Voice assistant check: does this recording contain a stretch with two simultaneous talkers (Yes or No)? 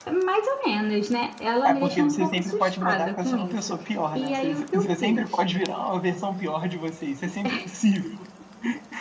Yes